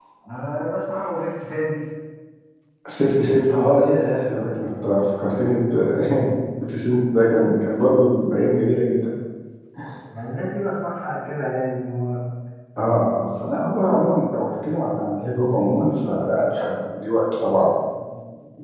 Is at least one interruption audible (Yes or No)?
No